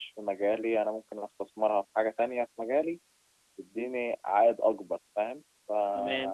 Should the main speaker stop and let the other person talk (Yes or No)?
Yes